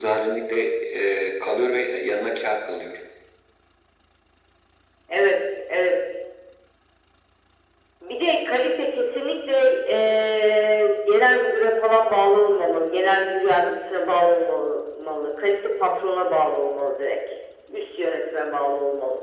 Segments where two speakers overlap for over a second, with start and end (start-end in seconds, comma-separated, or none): none